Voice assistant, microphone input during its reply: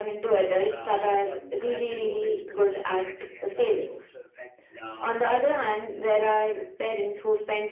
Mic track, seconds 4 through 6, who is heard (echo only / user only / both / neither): both